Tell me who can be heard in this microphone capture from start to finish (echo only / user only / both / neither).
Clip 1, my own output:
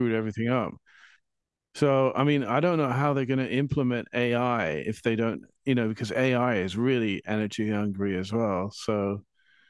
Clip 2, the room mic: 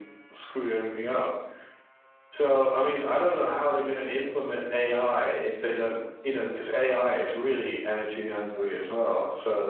echo only